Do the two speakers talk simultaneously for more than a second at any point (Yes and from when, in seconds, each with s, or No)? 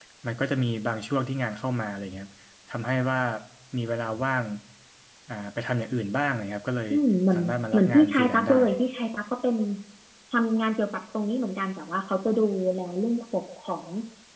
Yes, from 7.3 s